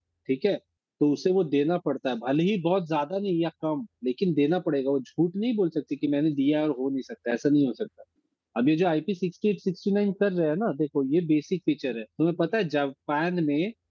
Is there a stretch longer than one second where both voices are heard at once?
No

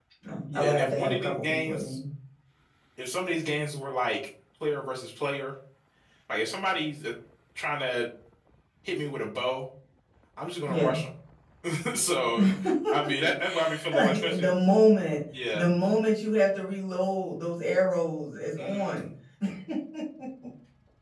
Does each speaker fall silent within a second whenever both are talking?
No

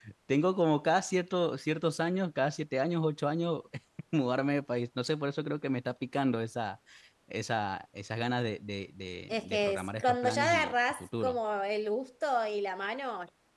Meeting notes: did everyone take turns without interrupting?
No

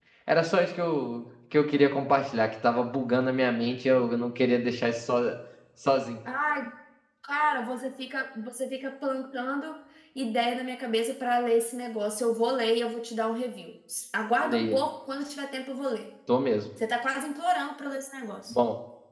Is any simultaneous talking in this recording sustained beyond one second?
No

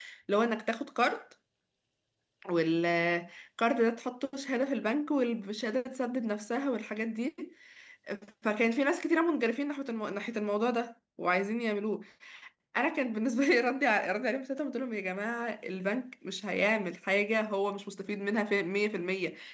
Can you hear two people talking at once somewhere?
No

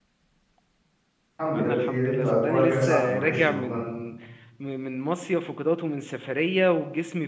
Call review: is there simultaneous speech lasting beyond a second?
Yes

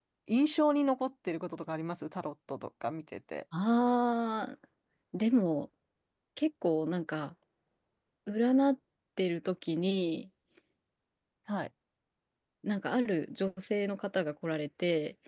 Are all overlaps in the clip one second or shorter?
Yes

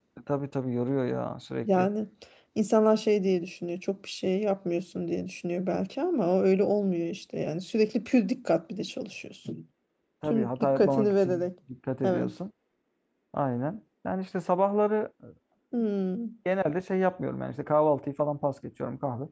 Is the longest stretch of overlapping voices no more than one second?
No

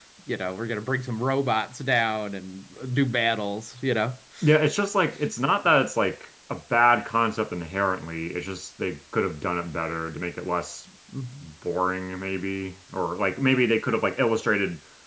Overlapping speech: No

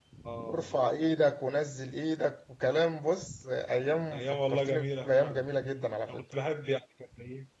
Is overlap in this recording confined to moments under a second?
No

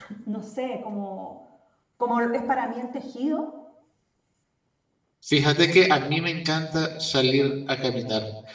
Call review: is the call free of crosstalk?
Yes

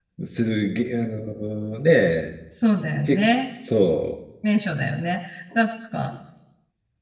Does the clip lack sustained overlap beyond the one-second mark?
Yes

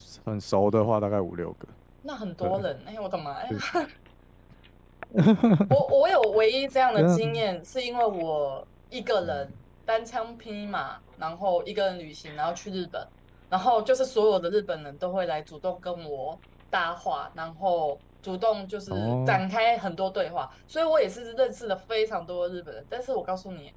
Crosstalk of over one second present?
No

